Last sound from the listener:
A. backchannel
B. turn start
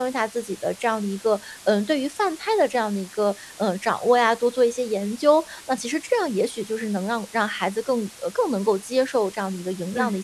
B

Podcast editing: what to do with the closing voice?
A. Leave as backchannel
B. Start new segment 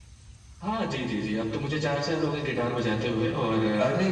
A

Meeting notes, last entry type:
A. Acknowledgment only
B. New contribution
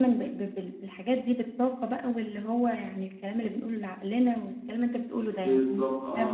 B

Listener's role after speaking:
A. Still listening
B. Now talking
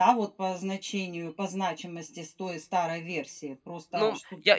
B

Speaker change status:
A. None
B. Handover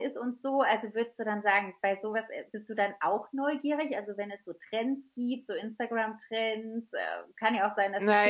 B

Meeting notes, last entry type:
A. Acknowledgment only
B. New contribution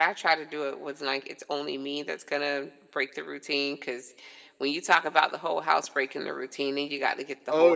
A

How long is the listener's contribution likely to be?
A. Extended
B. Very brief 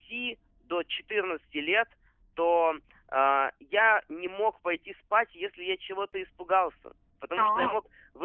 B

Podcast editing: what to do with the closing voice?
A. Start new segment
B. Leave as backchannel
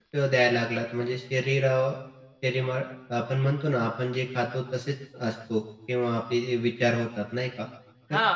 B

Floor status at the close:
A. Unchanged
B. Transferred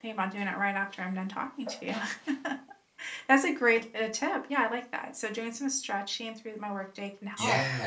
B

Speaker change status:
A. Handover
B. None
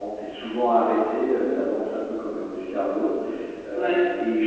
B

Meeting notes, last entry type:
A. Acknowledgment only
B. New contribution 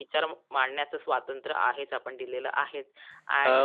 B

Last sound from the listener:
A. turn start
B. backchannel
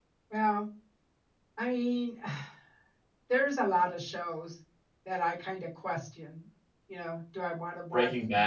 B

